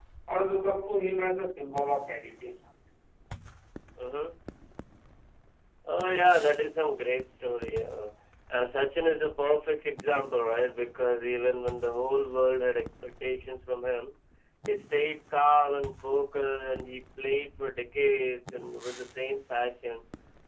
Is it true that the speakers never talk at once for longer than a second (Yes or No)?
Yes